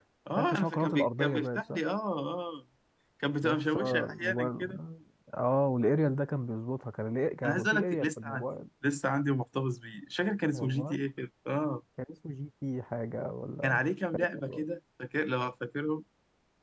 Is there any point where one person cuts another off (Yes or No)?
Yes